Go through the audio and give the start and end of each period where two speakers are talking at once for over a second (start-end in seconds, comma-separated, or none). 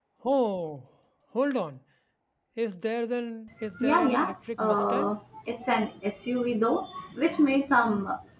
3.8-5.1